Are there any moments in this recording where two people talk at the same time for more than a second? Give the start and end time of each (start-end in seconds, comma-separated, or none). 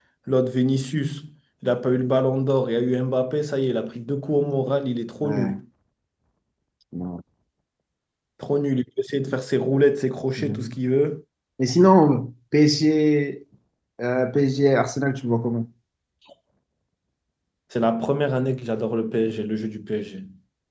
none